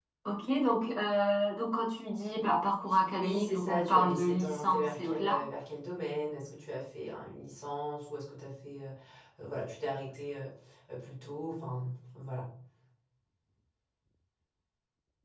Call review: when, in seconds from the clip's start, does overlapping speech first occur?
3.1 s

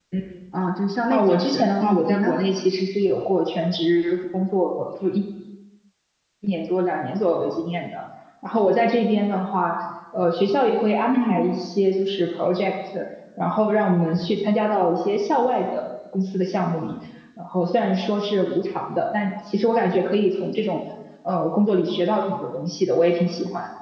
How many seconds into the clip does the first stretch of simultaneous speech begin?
1.1 s

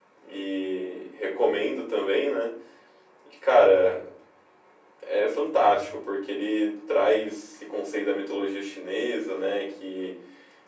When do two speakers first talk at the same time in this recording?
none

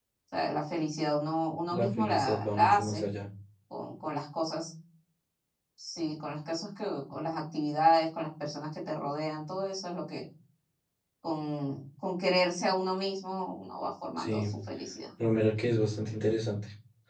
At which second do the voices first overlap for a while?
1.7 s

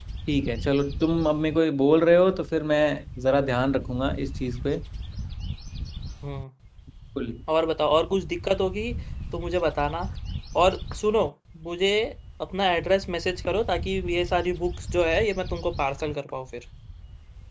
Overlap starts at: none

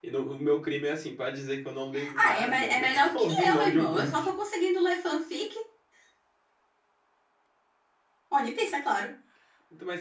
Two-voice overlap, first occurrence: 1.9 s

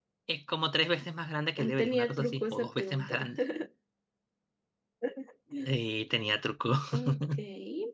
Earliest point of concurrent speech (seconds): 1.8 s

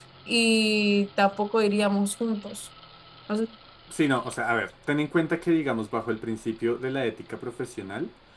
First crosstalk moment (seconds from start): none

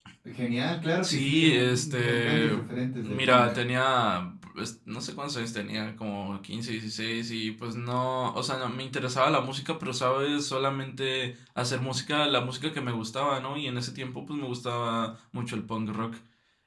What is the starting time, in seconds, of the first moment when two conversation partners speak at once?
1.0 s

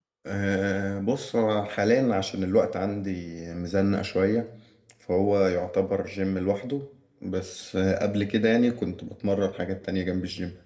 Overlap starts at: none

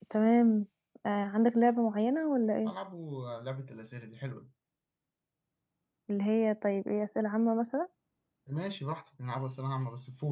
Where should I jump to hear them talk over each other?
none

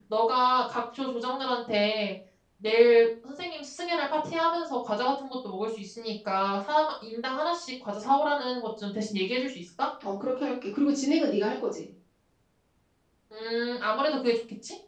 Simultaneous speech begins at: none

